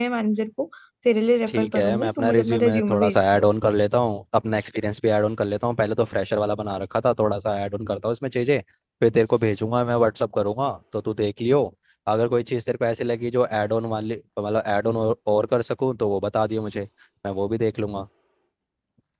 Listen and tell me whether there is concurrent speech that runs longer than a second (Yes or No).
Yes